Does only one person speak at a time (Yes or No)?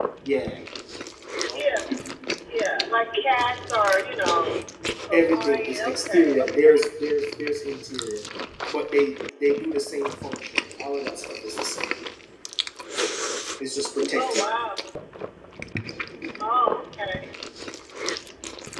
No